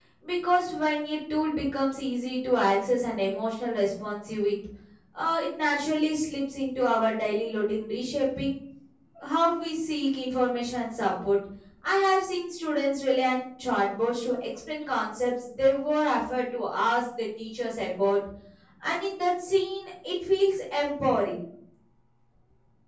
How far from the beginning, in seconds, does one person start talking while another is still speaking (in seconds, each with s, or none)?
none